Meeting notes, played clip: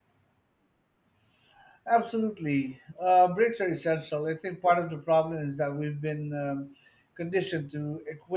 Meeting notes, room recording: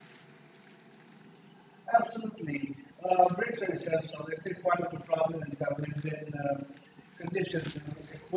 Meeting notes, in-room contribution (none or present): none